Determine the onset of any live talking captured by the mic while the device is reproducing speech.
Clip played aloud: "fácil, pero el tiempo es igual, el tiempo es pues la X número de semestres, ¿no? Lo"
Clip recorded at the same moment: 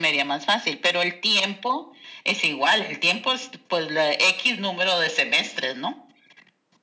none

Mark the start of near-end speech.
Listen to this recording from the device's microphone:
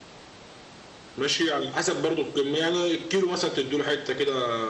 none

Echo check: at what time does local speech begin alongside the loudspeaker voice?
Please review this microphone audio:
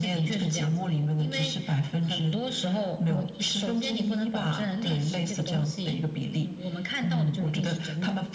none

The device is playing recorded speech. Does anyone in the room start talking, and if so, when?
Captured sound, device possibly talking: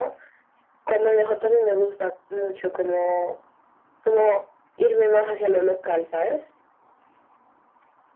none

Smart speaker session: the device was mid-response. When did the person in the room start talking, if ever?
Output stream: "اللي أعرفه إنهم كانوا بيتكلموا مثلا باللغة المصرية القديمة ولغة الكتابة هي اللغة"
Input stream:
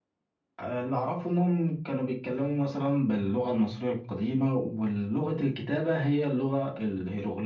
none

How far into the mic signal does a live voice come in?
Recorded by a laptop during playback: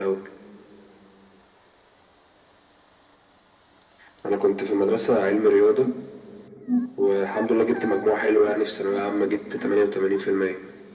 none

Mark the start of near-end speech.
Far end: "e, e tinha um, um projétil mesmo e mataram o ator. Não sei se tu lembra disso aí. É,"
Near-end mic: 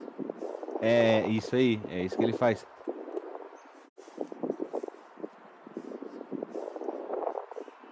0.8 s

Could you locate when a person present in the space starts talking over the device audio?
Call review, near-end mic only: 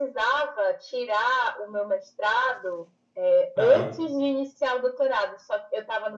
3.6 s

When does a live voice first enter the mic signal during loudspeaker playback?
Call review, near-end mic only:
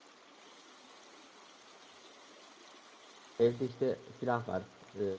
3.4 s

